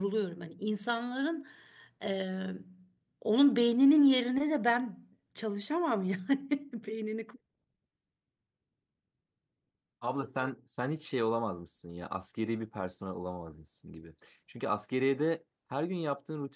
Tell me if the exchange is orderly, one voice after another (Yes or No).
Yes